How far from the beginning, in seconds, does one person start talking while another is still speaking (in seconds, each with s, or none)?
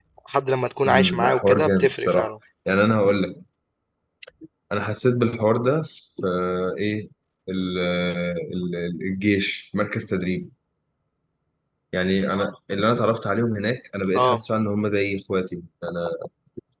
0.8 s